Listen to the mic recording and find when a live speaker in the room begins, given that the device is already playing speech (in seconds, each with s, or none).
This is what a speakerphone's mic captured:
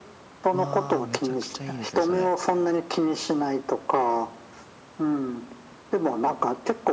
0.5 s